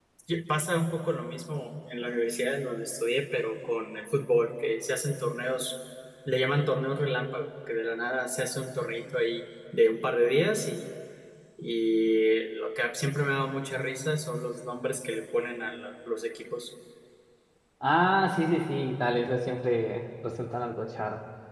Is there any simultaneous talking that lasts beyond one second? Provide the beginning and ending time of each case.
none

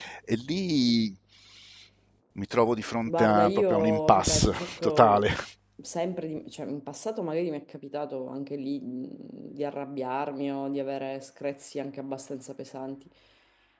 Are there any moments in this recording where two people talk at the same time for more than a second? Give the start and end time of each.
3.1-5.3

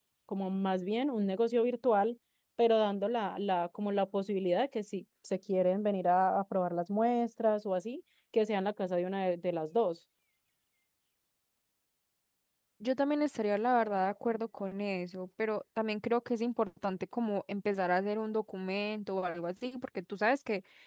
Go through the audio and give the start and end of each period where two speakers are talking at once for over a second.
none

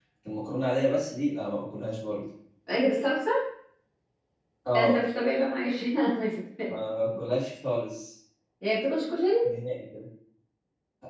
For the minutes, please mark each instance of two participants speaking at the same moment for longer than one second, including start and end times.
none

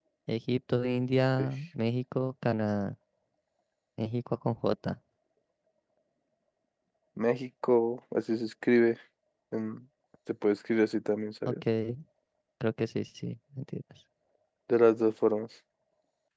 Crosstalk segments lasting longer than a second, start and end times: none

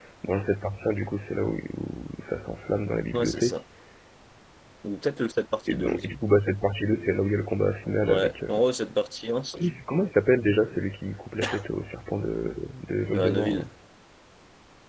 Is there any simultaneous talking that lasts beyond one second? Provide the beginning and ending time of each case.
none

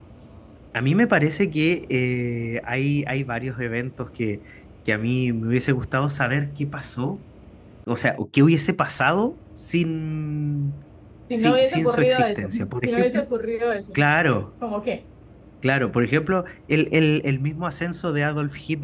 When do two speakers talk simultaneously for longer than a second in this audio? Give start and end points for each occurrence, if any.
11.3-13.2

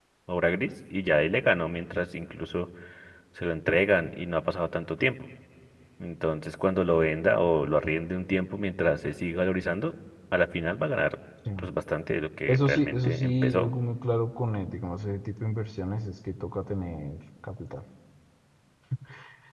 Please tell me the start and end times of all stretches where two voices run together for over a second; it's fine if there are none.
12.5-13.7

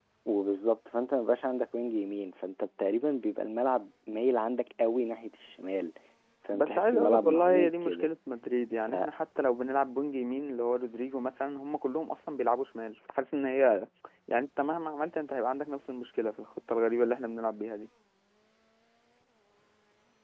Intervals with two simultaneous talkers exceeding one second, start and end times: 6.5-8.1

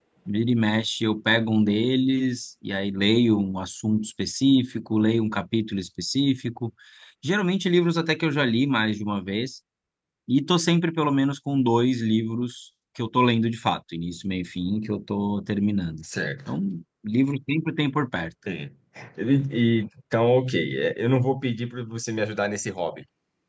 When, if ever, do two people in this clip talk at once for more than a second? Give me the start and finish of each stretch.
none

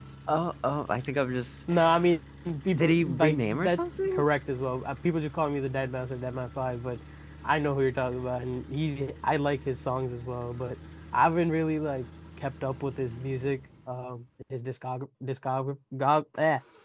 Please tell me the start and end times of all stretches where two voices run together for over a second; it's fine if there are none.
2.7-4.2

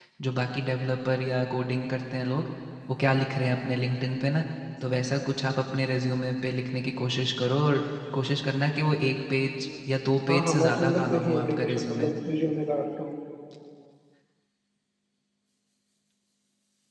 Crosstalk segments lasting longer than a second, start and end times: 10.3-12.1

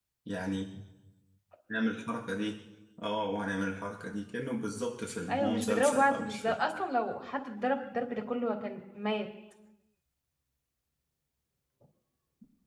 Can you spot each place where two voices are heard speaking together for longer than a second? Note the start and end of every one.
5.3-6.6

